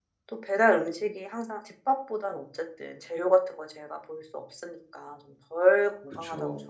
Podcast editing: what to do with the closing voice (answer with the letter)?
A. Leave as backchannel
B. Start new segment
A